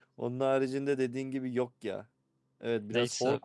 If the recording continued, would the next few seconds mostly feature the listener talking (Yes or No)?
No